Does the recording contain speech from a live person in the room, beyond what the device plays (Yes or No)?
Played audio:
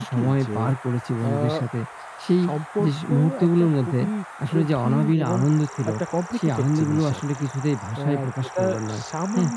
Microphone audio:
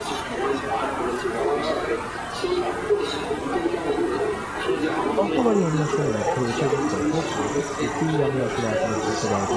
Yes